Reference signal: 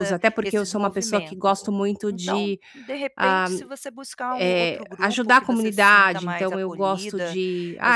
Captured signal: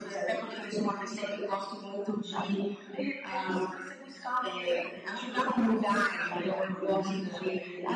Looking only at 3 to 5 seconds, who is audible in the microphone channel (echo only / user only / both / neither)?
echo only